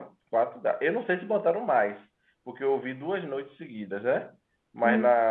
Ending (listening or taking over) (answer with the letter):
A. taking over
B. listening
B